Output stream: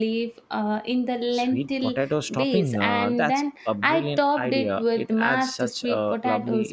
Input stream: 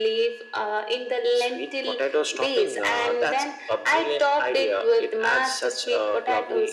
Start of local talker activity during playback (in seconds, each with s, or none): none